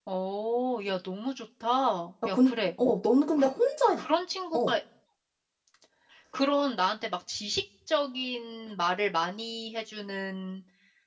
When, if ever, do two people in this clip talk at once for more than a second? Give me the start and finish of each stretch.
none

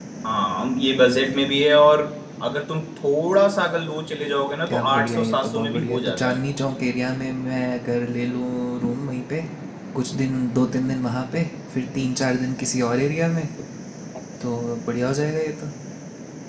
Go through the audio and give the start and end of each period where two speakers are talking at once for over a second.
4.7-6.4

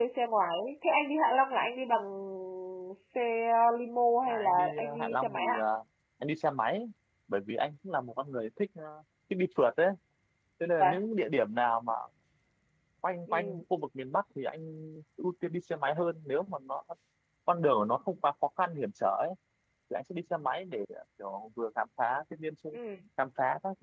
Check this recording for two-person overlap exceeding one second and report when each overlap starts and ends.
4.3-5.6

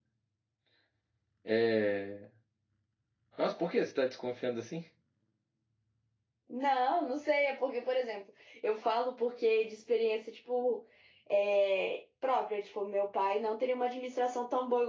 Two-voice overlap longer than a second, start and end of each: none

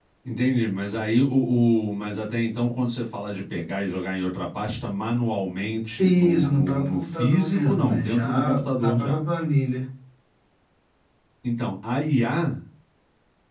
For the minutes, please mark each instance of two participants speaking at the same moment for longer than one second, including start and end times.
6.0-9.2

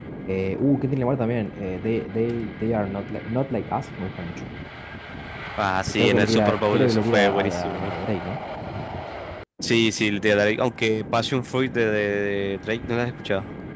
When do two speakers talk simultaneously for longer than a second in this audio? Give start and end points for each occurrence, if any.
5.9-8.0

